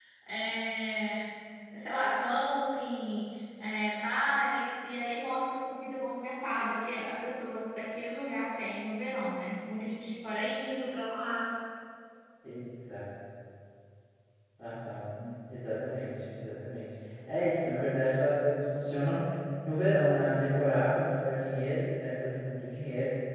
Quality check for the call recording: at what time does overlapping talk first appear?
none

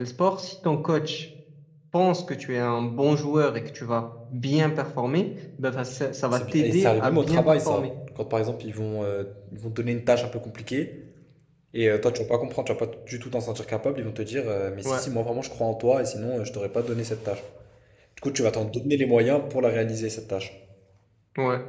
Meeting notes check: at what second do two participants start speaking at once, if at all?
6.3 s

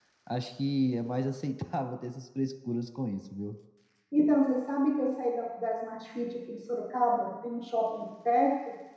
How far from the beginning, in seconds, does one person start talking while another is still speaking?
none

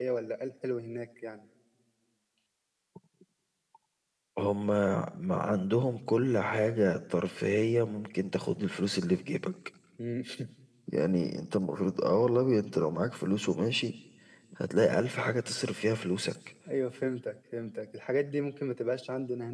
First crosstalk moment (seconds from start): none

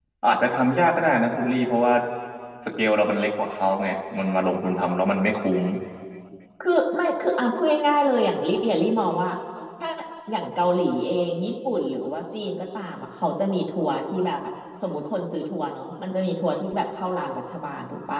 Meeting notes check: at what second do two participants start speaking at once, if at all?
none

